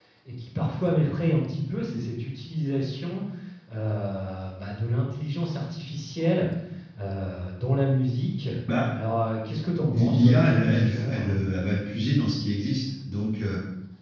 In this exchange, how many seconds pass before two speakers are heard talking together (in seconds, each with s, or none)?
9.9 s